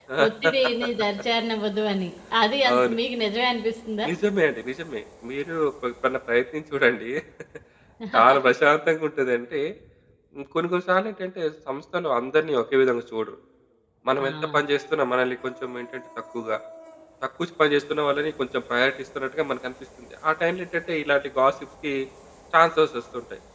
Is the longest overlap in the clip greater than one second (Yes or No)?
No